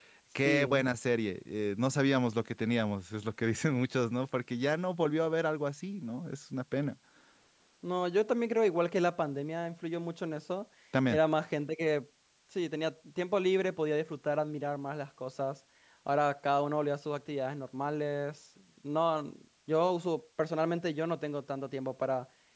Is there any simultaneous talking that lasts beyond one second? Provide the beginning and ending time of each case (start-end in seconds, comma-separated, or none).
none